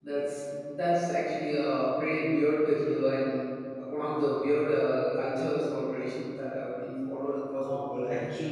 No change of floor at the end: No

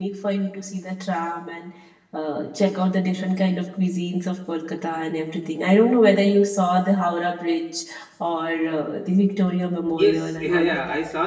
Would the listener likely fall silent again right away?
No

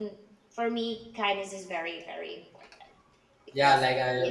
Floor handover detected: Yes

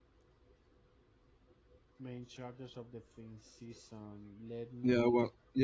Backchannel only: No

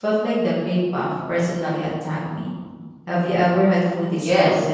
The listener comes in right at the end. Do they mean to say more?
Yes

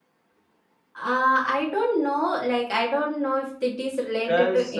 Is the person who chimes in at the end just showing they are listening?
Yes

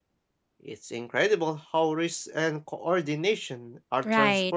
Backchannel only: No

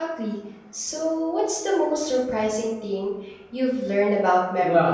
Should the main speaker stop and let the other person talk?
Yes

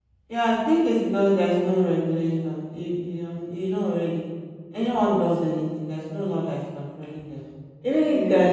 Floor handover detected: No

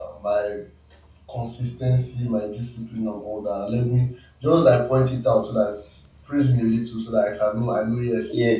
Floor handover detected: Yes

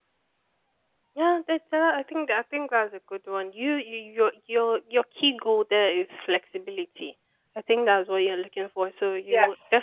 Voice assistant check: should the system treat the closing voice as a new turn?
No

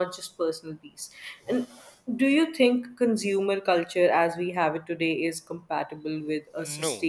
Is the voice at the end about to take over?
Yes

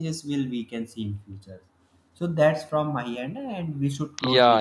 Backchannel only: No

